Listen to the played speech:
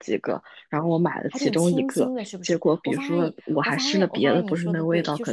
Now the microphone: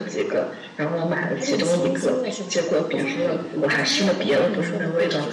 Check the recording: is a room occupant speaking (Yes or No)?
No